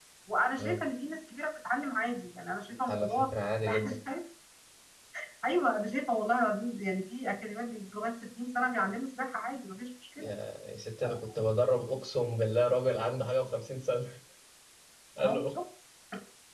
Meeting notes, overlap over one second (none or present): none